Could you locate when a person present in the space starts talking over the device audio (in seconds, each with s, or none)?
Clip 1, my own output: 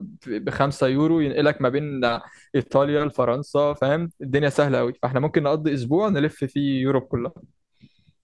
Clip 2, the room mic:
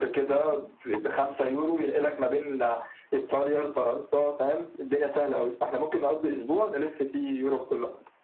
none